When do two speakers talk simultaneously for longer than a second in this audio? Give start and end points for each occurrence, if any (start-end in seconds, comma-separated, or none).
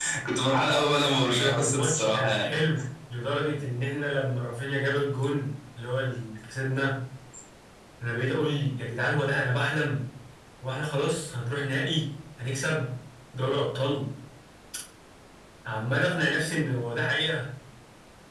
1.1-2.5